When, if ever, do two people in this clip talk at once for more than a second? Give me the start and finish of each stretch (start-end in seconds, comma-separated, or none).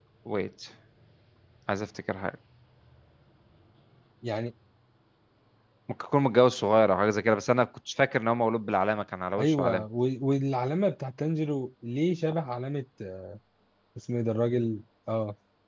none